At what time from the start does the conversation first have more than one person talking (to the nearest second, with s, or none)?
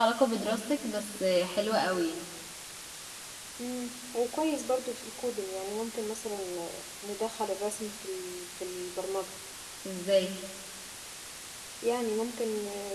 none